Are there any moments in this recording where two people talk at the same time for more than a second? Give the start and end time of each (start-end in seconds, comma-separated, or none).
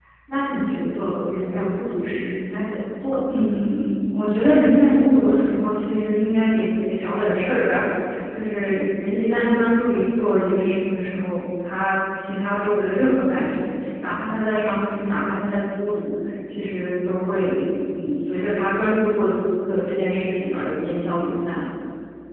none